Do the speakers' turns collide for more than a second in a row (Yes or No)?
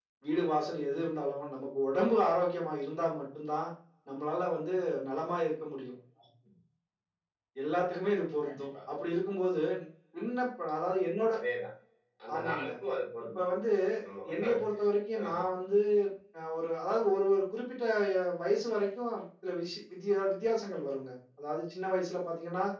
No